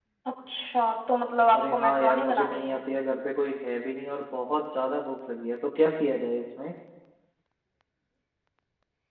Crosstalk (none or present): present